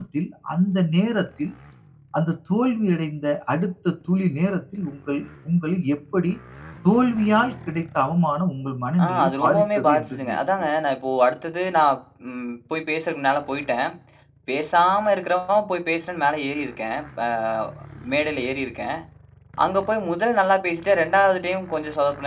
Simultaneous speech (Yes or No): Yes